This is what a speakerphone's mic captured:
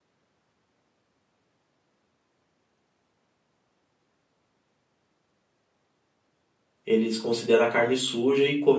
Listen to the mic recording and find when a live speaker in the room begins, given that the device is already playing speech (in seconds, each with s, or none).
6.8 s